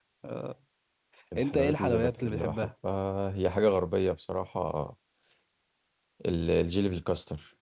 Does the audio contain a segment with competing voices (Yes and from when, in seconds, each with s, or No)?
Yes, from 1.4 s